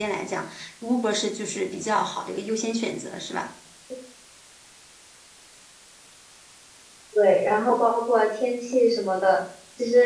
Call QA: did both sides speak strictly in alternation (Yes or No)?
Yes